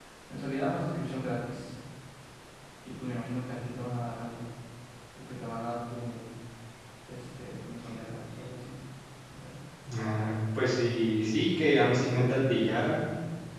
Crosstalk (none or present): none